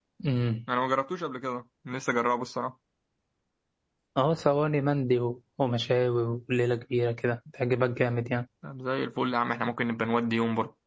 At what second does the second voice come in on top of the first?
none

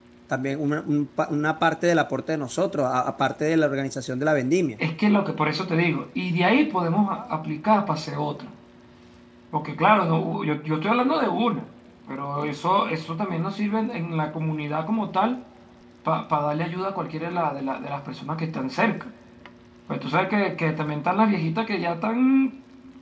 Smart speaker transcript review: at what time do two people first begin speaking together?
none

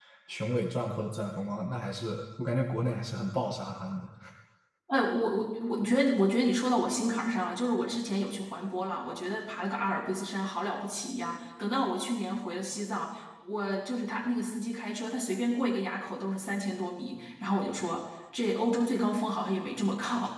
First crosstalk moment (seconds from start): none

